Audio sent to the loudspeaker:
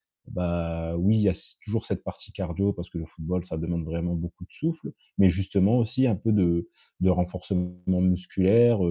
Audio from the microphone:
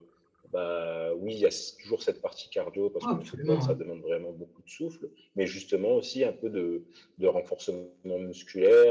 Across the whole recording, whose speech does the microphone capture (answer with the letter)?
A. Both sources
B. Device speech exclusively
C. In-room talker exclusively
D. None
A